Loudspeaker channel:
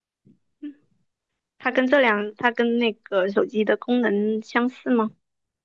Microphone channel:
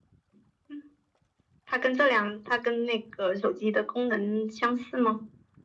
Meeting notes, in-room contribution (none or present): none